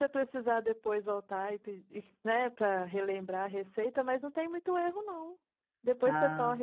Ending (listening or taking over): listening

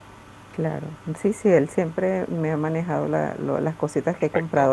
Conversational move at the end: listening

